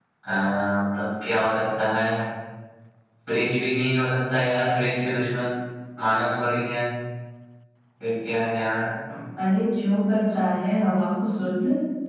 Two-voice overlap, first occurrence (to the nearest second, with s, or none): none